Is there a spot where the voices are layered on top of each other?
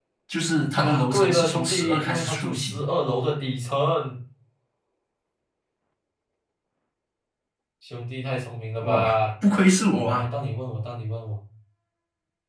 Yes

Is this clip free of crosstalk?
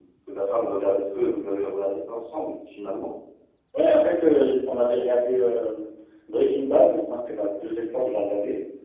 Yes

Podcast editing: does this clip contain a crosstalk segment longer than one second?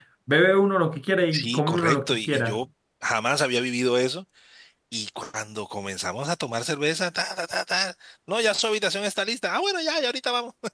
Yes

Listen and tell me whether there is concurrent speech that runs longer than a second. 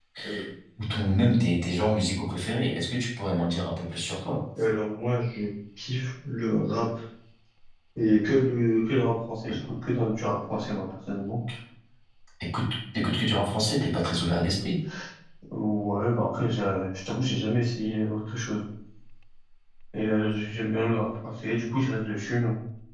No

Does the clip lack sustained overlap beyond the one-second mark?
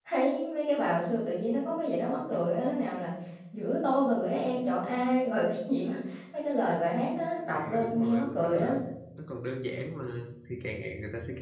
No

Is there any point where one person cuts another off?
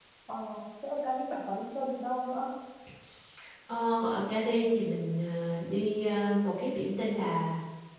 No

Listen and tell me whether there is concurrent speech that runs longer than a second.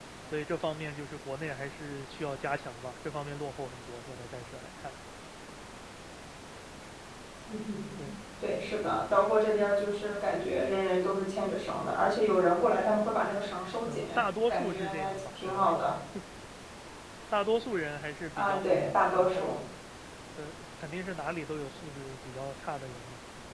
Yes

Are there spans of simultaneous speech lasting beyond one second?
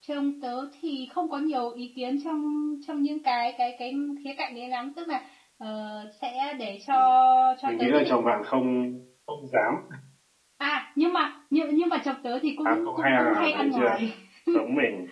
Yes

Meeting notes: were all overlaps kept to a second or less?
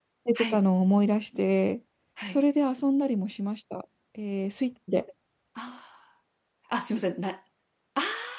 Yes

